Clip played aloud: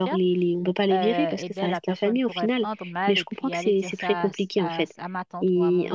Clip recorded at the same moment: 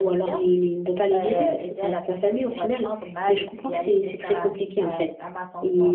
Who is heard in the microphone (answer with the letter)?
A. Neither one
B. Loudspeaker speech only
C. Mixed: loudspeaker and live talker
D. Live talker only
B